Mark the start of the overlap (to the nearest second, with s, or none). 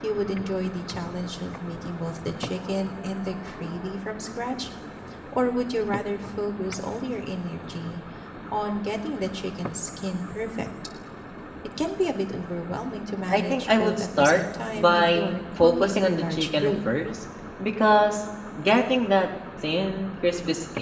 13 s